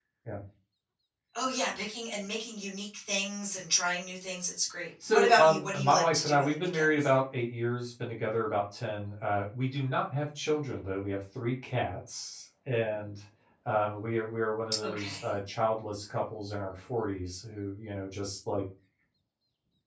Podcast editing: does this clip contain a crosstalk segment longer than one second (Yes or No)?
Yes